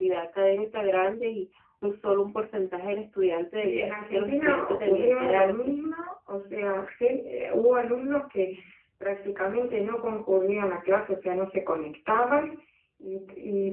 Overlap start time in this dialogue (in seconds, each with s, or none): 3.6 s